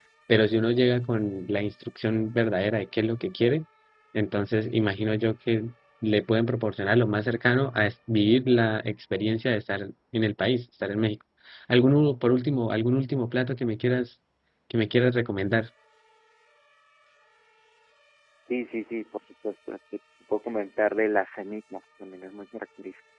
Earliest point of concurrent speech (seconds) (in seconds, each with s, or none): none